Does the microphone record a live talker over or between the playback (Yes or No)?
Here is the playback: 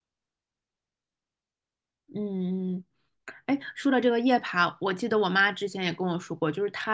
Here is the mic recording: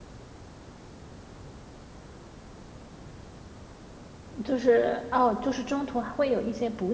Yes